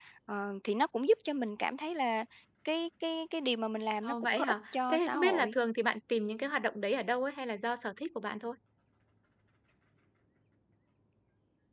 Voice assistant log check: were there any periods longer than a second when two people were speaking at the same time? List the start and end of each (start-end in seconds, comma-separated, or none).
4.0-5.5